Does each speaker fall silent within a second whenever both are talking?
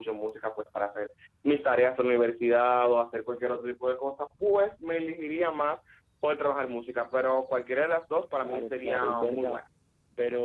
No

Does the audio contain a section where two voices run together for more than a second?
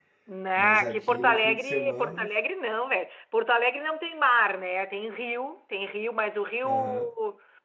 Yes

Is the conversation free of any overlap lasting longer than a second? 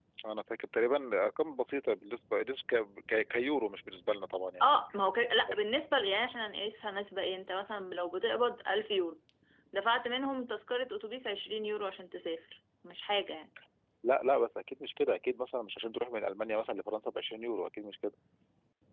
Yes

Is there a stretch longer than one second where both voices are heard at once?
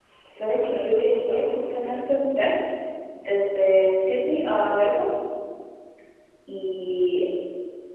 Yes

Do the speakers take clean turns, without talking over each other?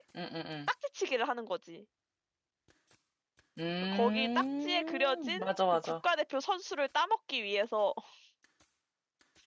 No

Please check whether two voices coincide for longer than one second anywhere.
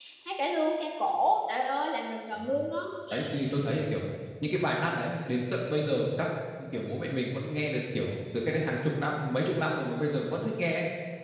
No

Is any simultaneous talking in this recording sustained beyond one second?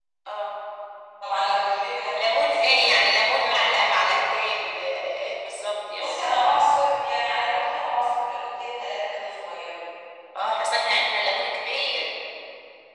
Yes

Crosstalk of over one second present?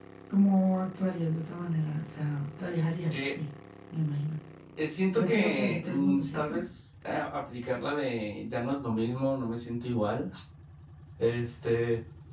Yes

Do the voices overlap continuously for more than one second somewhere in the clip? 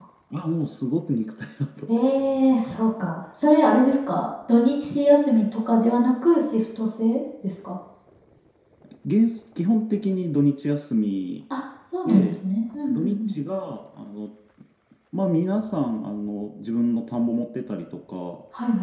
No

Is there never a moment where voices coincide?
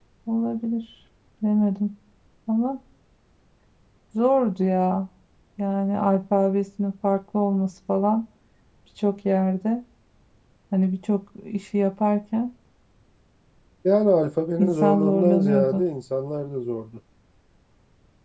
No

